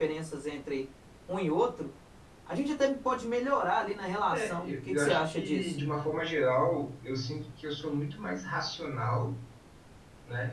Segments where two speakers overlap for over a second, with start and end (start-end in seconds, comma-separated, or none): 4.3-5.8